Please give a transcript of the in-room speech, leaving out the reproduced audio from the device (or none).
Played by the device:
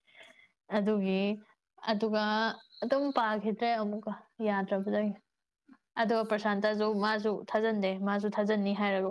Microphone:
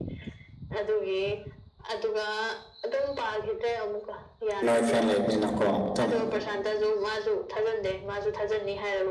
ꯅꯣꯏ ꯐ꯭ꯔꯦꯟ ꯂꯩꯕꯅꯤꯅꯀꯣ ꯑꯗꯨꯝ